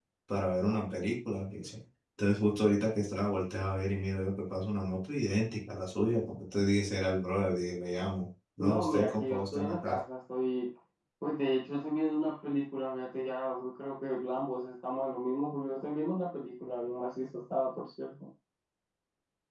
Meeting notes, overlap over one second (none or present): present